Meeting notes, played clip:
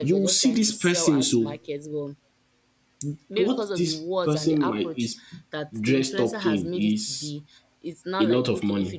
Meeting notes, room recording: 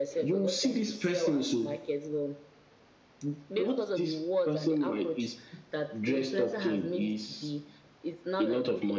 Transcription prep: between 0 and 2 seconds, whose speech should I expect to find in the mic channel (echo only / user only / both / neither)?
echo only